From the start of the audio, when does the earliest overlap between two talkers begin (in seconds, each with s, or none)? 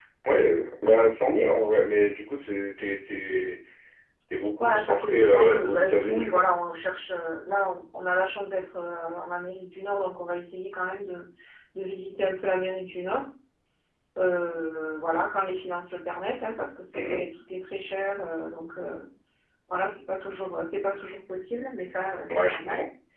4.6 s